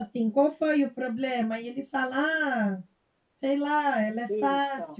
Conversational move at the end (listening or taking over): listening